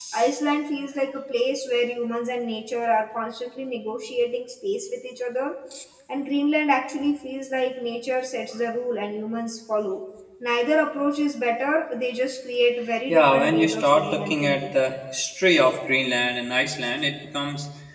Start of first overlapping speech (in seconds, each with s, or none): 13.1 s